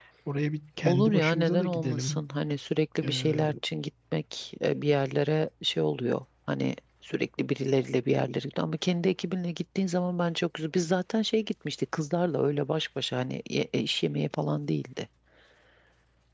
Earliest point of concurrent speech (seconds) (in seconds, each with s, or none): 0.9 s